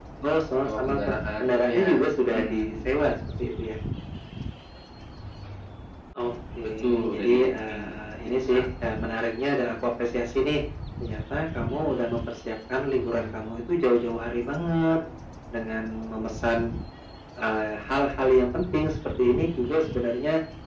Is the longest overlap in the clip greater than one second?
Yes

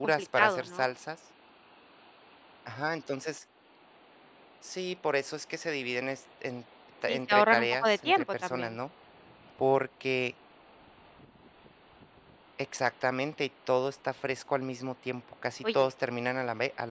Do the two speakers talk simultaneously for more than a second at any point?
Yes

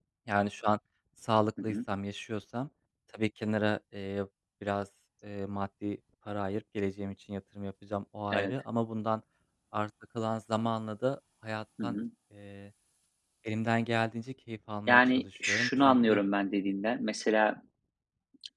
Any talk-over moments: Yes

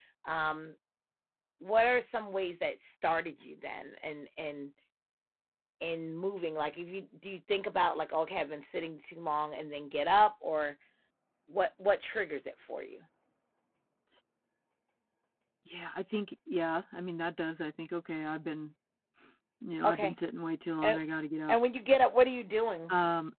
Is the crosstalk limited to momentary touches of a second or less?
Yes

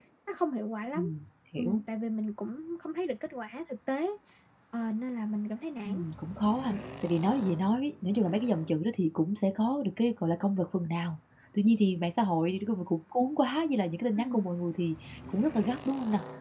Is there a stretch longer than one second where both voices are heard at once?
No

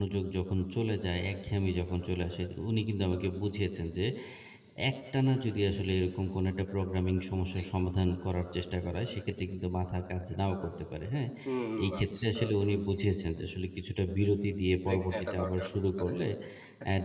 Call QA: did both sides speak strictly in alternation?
No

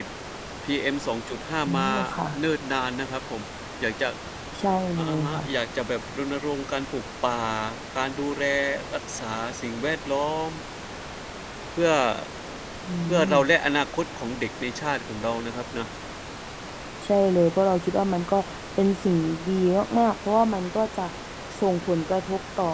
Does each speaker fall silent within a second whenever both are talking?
Yes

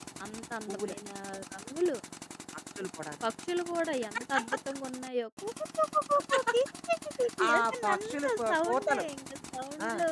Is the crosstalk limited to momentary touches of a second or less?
No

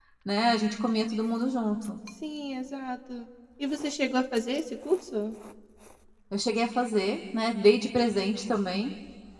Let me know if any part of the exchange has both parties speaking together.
No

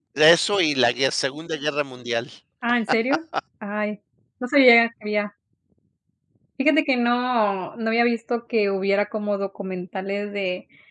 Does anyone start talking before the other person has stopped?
No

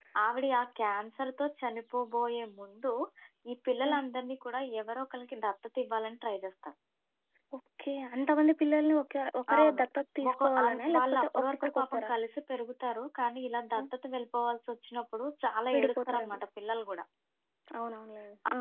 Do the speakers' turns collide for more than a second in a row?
Yes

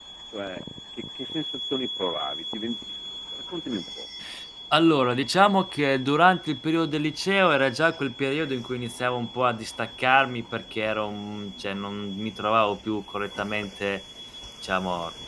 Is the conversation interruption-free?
Yes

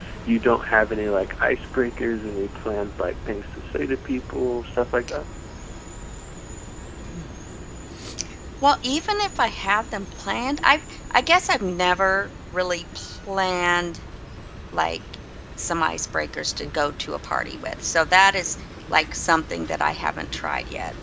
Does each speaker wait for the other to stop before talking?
Yes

